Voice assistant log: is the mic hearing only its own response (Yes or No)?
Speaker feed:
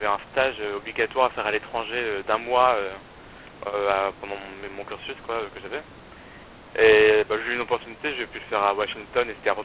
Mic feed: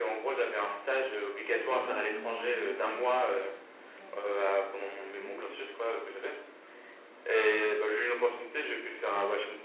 No